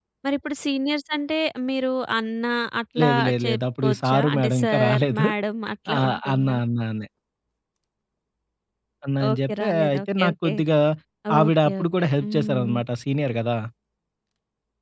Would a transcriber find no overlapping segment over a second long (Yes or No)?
No